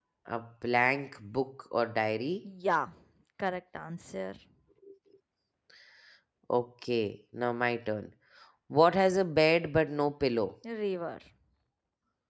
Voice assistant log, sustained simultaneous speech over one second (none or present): none